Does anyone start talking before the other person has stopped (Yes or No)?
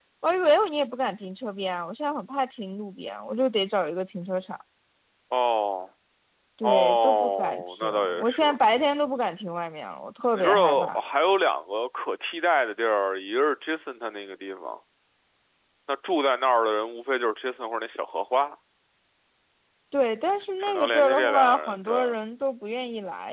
Yes